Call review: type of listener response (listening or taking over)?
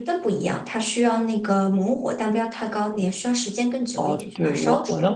taking over